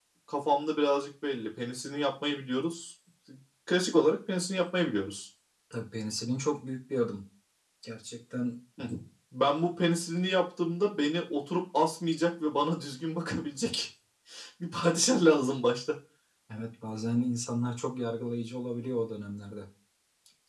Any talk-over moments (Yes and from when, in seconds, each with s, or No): No